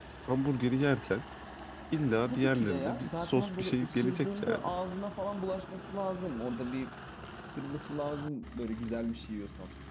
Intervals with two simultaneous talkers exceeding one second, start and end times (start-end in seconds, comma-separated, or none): 2.3-4.7